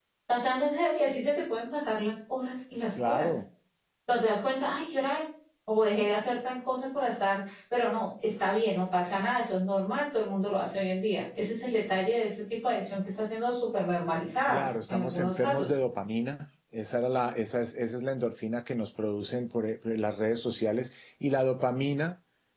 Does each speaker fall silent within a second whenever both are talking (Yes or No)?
No